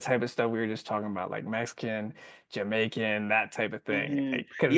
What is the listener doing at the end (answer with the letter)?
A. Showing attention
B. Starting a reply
B